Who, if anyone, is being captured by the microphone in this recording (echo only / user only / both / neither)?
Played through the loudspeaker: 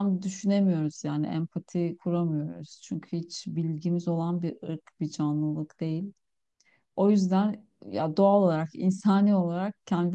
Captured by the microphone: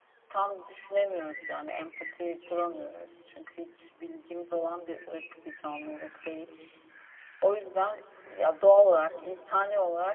echo only